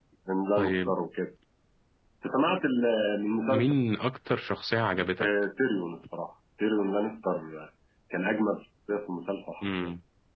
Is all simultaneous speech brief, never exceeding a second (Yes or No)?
Yes